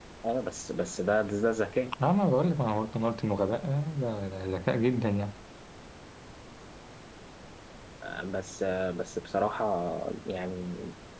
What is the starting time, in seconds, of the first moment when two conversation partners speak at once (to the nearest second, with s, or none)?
none